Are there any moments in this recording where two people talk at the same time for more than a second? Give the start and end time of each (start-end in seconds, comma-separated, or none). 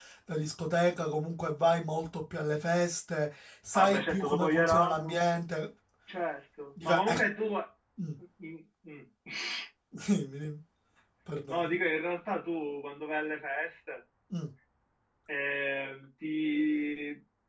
3.7-5.1